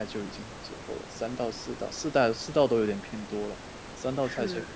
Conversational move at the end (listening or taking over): listening